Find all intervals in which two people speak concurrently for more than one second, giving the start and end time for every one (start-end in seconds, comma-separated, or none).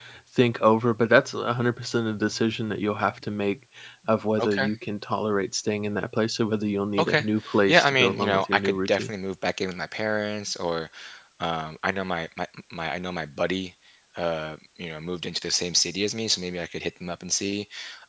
7.7-9.1